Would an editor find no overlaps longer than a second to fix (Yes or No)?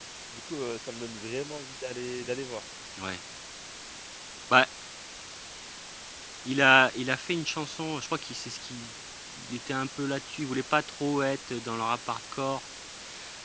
Yes